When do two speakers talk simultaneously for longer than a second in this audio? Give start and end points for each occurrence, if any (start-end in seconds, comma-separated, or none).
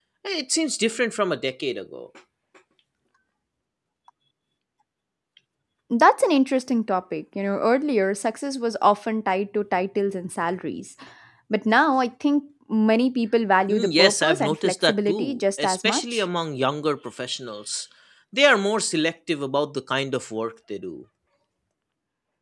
13.7-16.2